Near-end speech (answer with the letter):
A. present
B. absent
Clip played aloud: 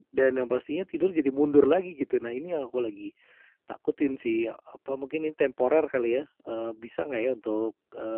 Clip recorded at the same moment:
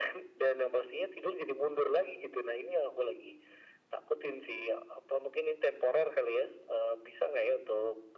B